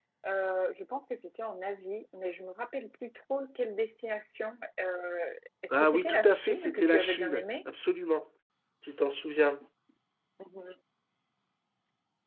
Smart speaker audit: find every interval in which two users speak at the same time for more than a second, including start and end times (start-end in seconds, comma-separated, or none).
5.8-7.5